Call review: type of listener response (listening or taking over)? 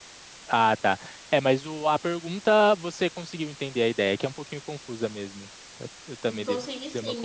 taking over